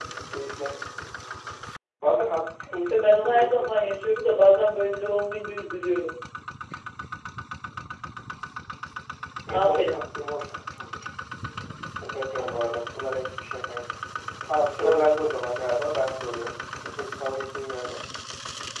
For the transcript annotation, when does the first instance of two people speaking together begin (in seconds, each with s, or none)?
2.7 s